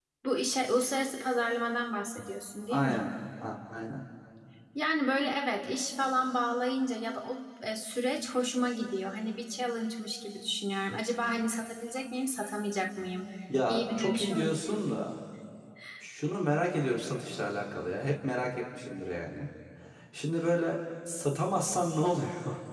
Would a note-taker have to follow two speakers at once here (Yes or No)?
Yes